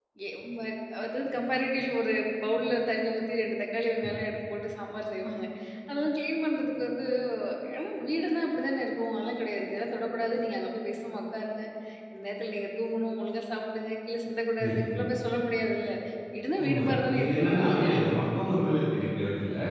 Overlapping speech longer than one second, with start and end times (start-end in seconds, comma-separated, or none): 16.6-18.0